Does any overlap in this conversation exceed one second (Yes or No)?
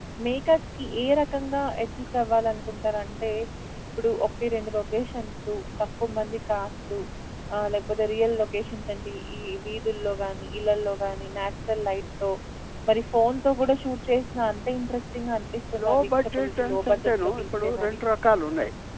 Yes